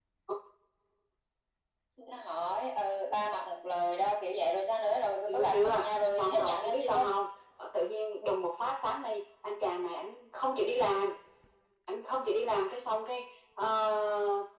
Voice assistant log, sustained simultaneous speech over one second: present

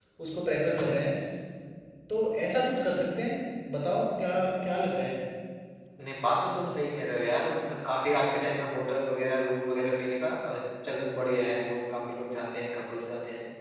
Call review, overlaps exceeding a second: none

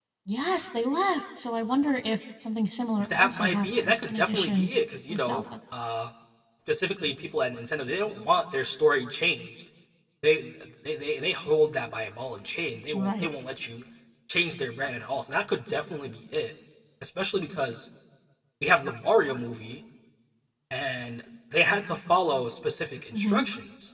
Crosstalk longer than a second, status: present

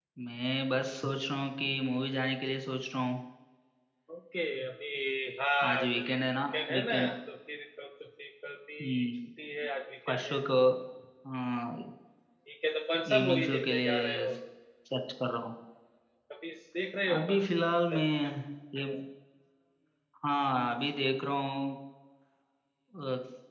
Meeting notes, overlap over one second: present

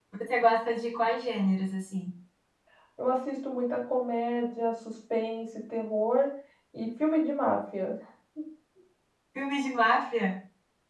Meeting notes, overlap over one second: none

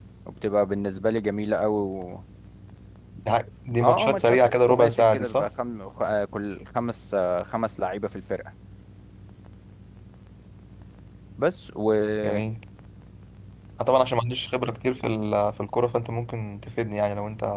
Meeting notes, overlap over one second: present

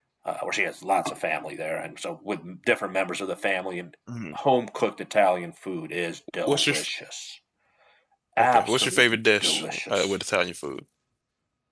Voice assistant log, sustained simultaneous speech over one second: present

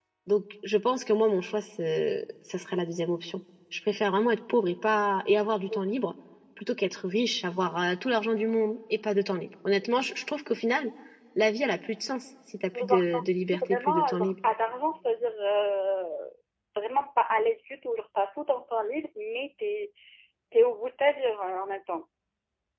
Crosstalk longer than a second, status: present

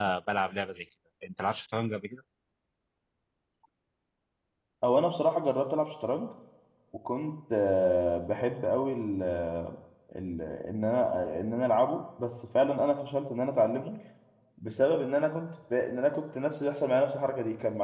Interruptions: none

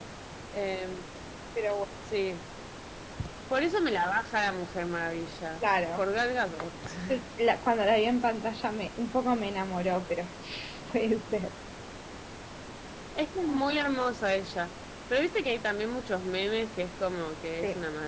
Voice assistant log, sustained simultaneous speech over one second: none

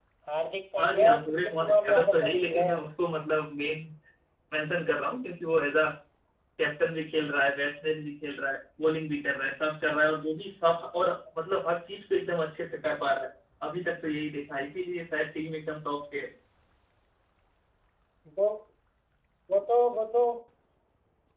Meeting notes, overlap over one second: present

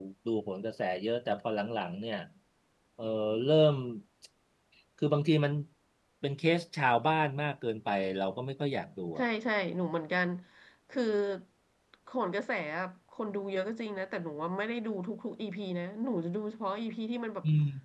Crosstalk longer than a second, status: none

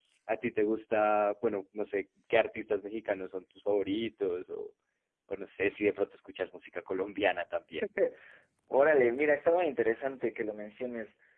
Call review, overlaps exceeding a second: none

